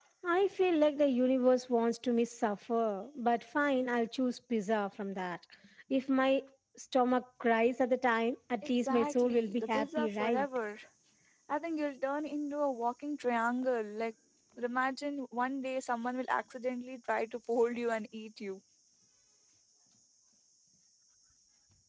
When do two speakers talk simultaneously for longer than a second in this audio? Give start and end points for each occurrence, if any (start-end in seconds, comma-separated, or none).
8.7-10.5